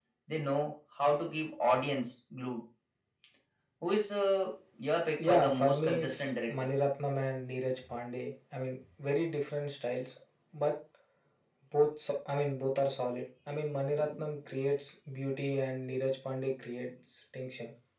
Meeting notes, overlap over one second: present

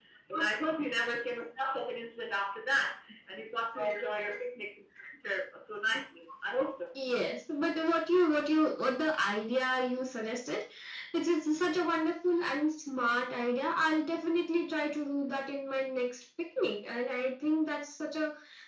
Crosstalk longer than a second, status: none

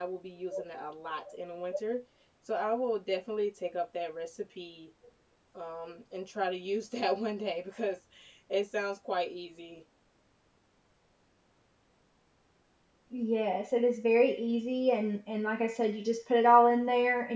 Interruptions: none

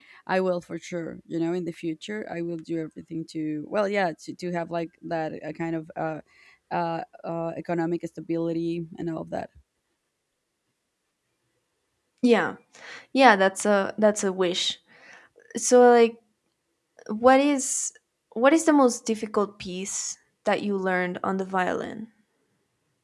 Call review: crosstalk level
none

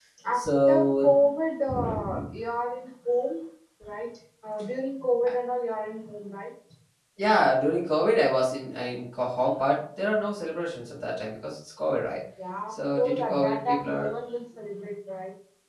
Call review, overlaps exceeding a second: present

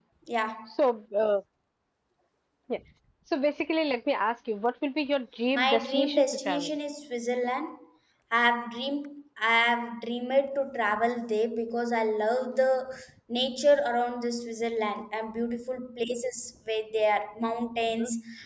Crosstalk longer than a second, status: present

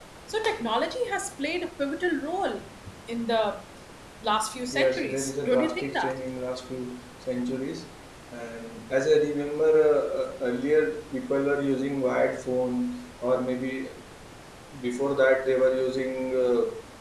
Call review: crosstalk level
present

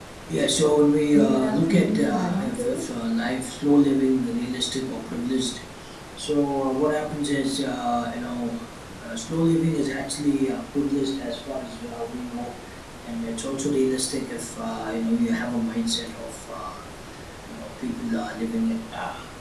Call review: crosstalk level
present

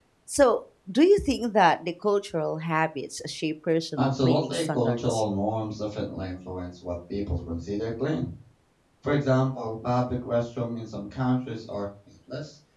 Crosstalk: present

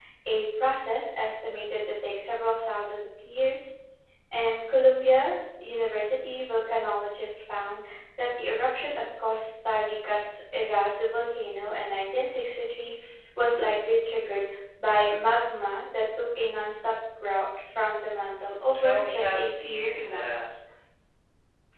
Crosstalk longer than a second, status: present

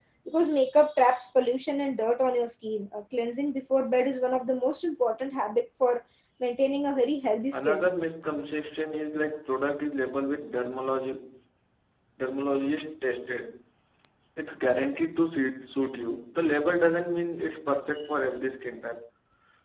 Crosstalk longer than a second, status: none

